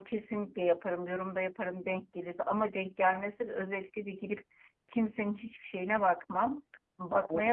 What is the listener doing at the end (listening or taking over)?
listening